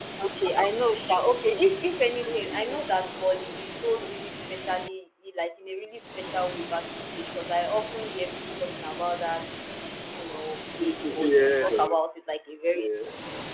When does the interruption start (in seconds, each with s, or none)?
10.8 s